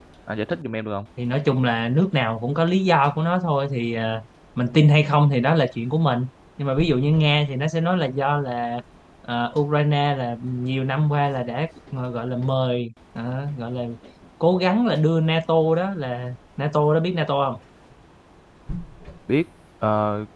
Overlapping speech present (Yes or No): No